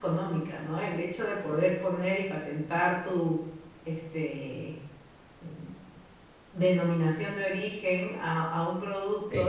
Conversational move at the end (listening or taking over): listening